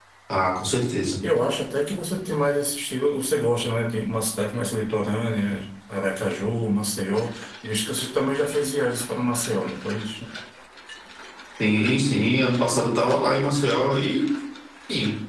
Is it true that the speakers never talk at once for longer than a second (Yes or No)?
Yes